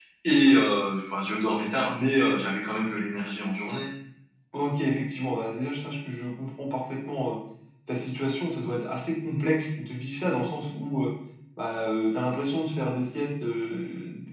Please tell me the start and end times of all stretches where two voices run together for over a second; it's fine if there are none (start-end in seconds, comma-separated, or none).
none